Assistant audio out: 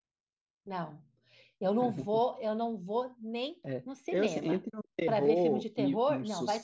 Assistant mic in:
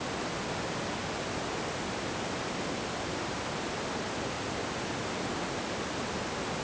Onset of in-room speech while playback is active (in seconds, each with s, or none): none